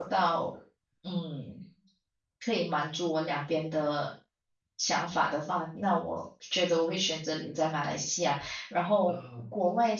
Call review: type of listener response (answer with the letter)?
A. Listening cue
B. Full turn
A